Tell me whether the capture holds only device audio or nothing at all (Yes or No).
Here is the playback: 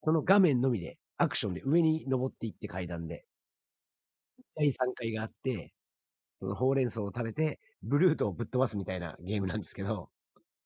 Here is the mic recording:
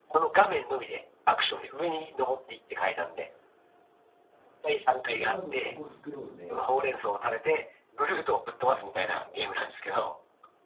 No